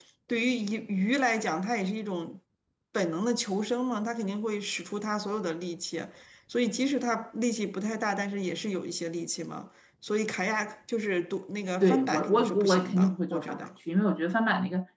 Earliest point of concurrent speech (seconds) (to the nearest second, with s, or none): 12 s